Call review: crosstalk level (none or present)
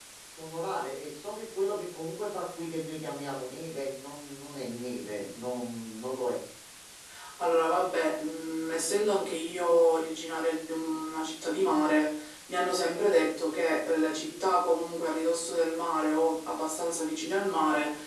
none